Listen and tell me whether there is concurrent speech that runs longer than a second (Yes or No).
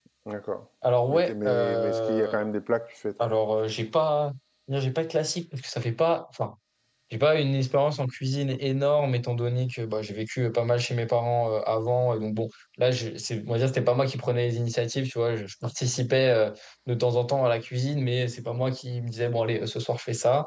Yes